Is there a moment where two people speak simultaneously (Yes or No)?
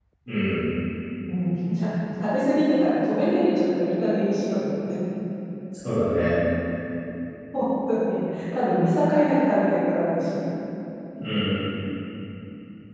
No